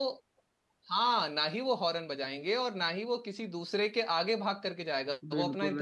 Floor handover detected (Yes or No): Yes